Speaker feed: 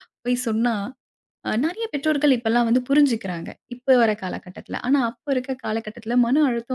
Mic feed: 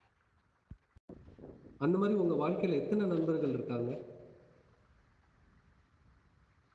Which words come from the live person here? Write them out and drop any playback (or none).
அந்த மாரி உங்க வாழ்க்கையில எத்தன நண்பர்கள் இருக்காங்க?